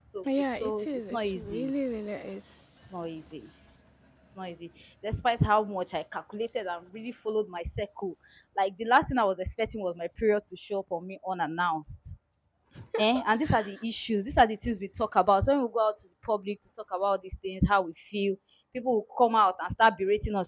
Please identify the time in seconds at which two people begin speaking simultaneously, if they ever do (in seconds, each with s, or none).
0.5 s